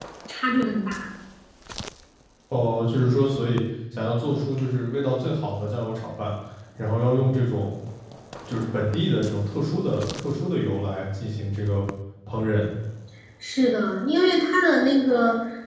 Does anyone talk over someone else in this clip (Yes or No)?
No